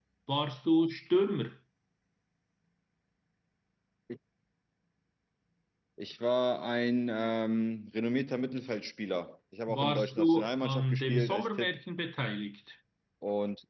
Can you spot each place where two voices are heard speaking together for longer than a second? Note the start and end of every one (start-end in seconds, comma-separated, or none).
9.7-11.7